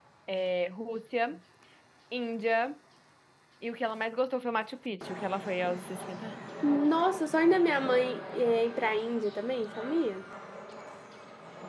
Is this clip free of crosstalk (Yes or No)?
Yes